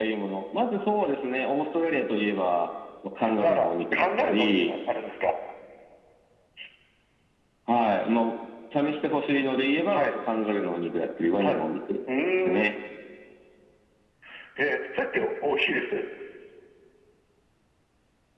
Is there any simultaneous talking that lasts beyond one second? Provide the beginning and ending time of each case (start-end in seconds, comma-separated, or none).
3.4-4.7